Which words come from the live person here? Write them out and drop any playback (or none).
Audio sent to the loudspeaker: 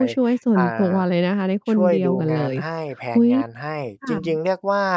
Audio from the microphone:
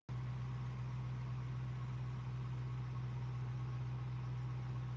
none